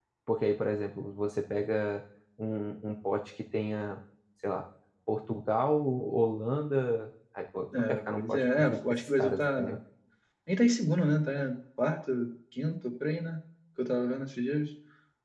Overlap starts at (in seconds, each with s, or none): 7.7 s